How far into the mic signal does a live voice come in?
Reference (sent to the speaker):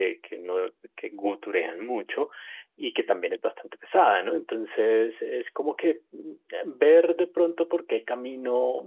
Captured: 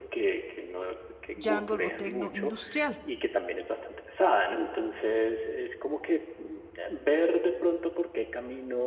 1.4 s

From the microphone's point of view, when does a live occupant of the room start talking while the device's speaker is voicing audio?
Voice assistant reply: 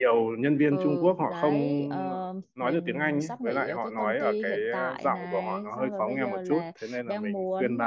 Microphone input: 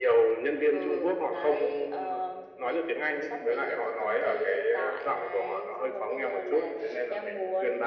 none

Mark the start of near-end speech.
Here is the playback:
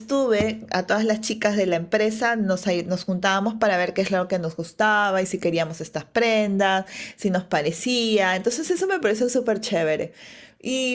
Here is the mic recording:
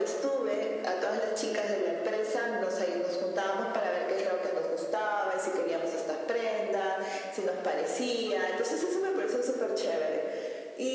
none

